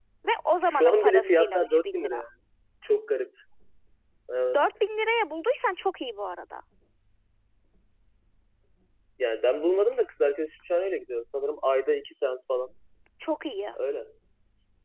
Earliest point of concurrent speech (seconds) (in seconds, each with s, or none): 0.6 s